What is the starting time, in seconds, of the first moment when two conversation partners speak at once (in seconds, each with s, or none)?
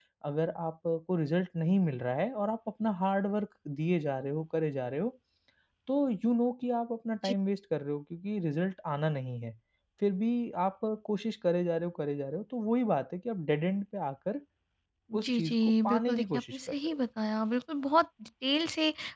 15.2 s